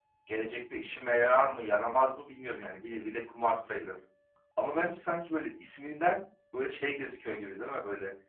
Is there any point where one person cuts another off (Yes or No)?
No